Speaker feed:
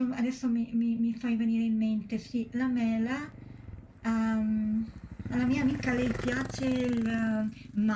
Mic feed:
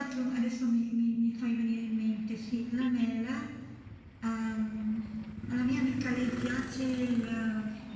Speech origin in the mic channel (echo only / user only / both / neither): echo only